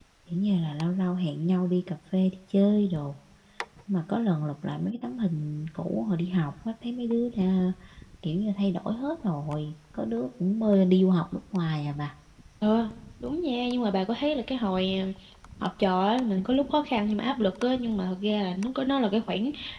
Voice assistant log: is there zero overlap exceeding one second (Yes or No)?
Yes